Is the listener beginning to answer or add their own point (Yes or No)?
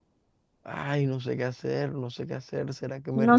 Yes